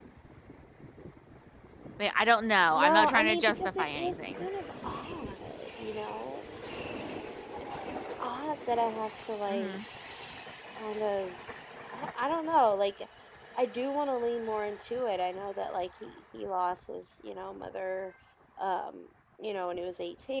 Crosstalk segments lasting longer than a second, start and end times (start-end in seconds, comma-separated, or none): 2.7-4.5